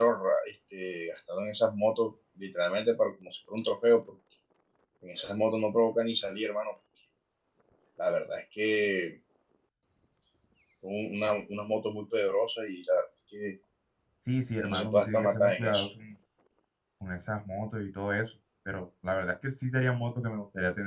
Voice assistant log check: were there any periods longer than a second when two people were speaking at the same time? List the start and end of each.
14.6-15.8

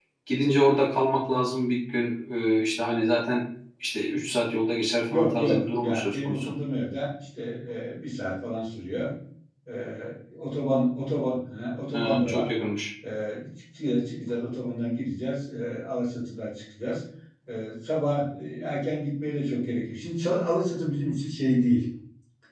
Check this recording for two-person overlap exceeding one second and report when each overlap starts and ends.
5.1-6.5

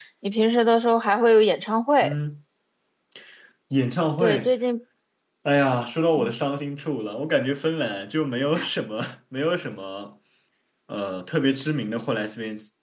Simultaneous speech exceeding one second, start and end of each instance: none

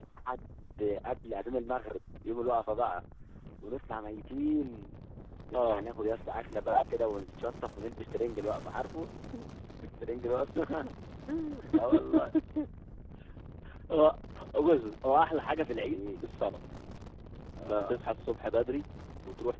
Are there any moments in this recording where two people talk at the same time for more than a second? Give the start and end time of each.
none

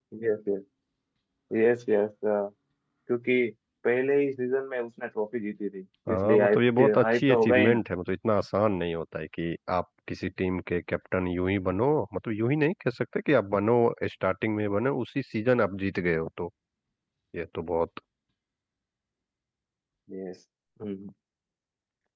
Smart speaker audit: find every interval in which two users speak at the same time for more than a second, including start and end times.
6.1-7.8

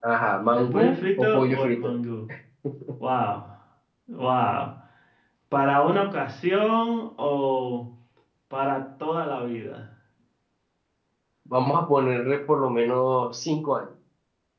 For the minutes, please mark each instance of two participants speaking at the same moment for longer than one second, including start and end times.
0.6-2.0

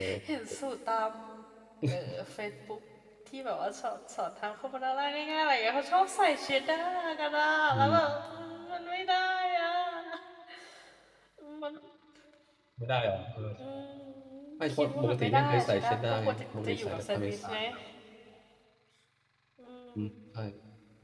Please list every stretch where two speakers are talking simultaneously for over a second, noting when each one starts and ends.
14.7-17.6

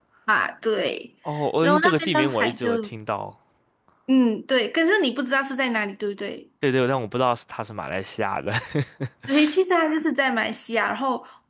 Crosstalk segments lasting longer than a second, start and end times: 1.6-2.9

